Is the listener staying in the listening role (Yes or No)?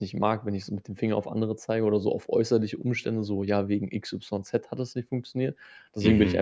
Yes